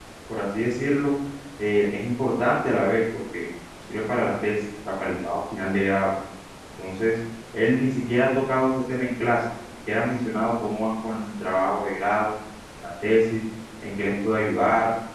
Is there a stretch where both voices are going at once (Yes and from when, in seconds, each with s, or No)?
No